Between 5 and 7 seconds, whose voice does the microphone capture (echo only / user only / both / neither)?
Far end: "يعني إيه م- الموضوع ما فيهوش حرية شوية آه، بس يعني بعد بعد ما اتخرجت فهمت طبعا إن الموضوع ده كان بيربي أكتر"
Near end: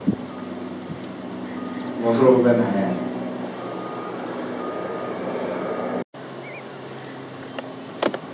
neither